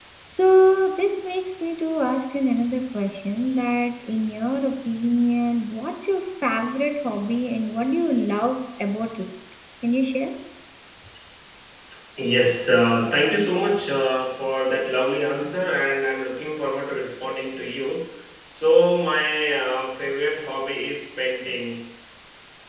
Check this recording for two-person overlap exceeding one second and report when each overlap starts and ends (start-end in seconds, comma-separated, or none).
none